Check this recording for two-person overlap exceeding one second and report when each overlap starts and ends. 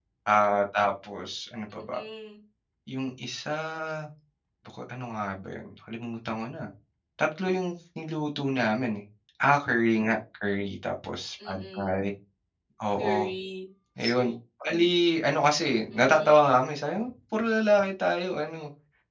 none

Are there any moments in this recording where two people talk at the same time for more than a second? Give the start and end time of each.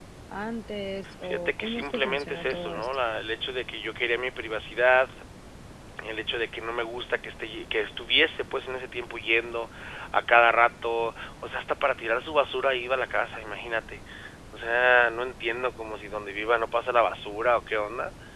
1.2-2.9

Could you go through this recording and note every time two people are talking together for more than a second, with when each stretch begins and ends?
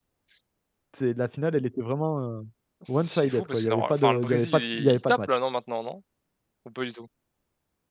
2.9-5.4

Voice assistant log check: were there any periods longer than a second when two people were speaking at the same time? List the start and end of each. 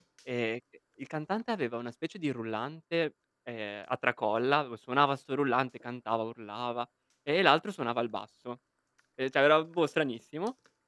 none

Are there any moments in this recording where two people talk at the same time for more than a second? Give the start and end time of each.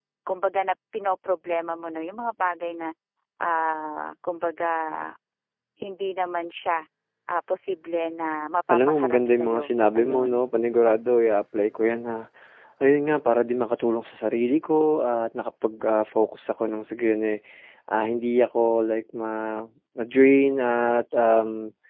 8.7-10.4

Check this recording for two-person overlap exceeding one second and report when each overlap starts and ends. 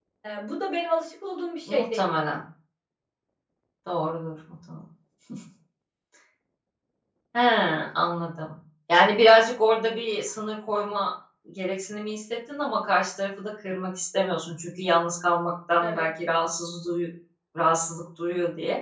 none

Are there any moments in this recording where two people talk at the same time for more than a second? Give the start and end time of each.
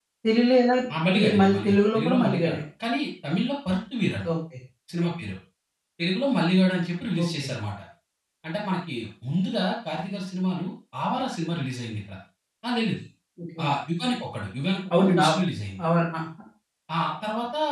1.2-2.6

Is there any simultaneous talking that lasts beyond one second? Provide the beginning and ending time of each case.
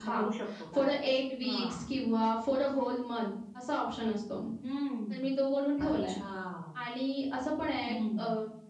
none

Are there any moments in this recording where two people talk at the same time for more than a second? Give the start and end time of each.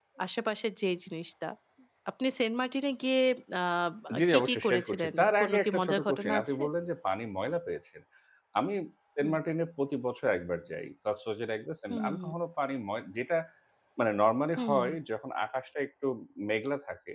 4.2-6.6

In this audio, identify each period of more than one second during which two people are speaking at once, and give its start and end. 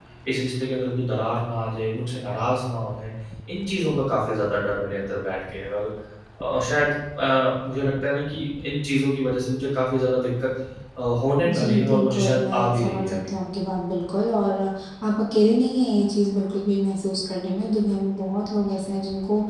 11.4-13.3

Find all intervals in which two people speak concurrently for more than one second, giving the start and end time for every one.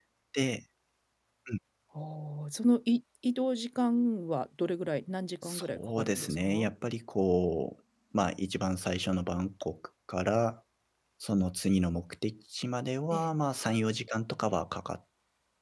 5.4-6.7

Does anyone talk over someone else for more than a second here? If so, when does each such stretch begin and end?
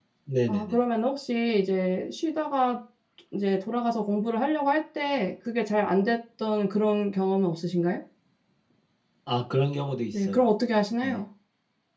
none

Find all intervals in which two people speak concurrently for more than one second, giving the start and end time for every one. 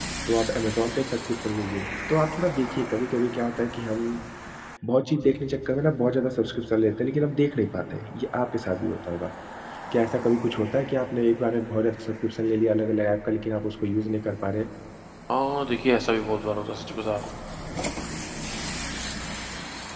none

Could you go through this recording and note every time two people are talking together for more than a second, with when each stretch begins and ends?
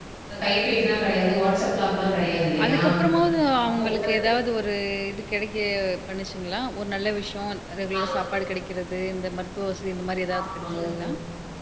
none

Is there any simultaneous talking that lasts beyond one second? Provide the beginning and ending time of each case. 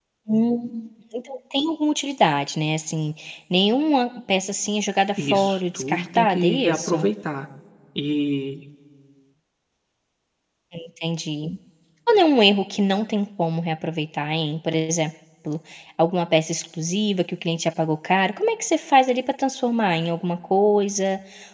5.2-7.0

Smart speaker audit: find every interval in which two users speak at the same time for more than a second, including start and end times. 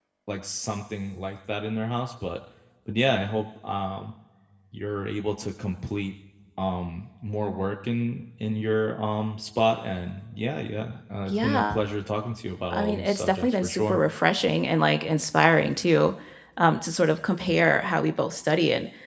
12.7-14.0

